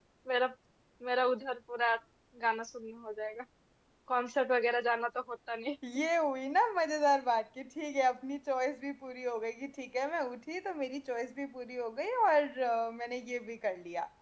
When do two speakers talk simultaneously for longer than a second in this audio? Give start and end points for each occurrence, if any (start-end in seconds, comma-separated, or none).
none